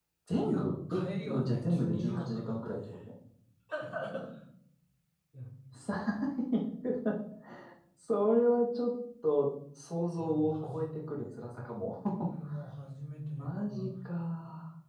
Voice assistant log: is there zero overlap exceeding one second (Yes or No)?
No